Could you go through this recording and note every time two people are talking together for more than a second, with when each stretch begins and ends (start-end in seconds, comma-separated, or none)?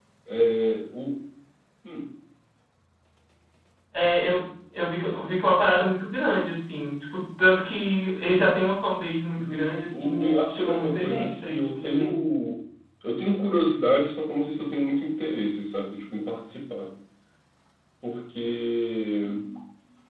9.4-12.2